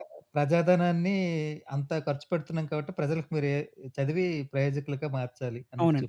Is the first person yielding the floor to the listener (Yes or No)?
Yes